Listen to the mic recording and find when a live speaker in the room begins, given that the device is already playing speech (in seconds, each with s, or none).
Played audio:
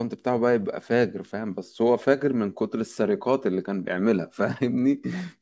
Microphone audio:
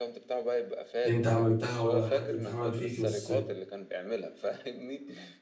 1.0 s